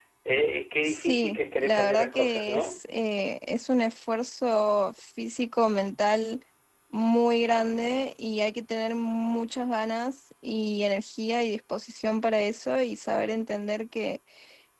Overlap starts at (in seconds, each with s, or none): 0.8 s